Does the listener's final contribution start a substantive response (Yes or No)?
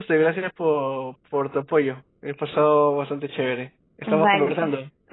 Yes